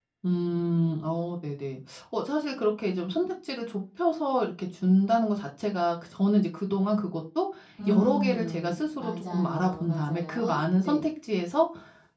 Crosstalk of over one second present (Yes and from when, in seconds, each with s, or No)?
Yes, from 7.9 s